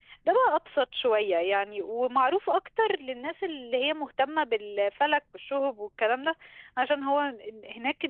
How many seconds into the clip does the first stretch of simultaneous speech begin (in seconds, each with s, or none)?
none